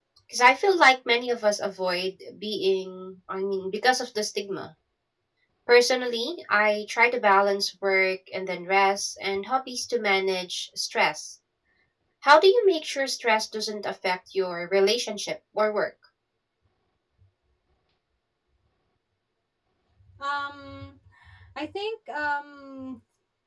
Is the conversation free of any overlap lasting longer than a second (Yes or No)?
Yes